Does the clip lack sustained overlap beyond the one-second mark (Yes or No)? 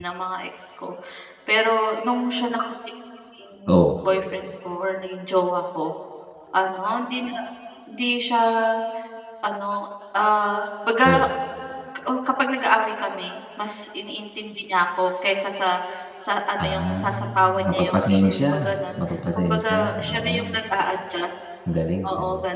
No